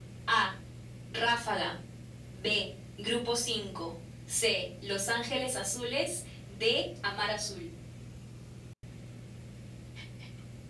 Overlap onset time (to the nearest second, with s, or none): none